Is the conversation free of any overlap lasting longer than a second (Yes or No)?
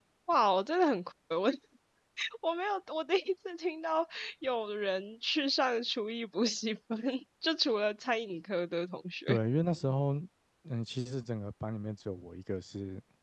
Yes